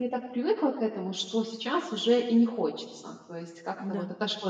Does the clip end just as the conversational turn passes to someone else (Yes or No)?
No